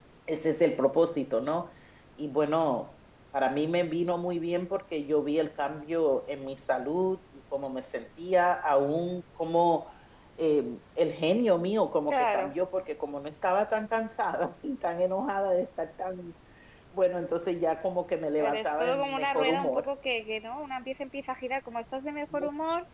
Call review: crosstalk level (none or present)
present